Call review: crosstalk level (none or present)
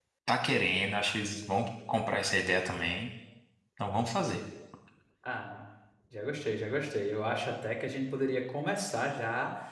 none